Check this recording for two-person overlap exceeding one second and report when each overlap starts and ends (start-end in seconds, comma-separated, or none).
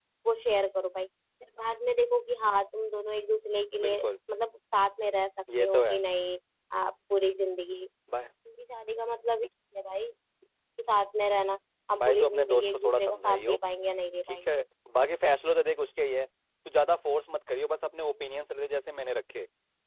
12.0-13.6